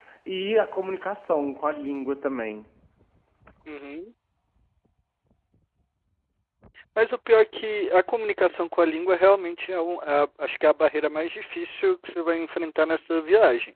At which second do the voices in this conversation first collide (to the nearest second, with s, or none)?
none